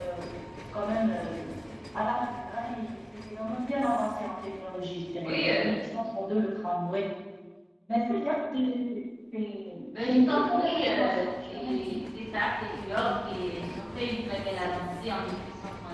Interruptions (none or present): present